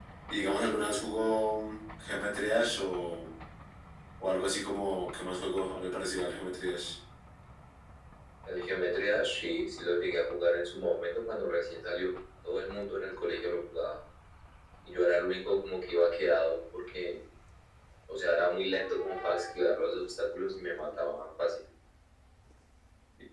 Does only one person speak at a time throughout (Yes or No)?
Yes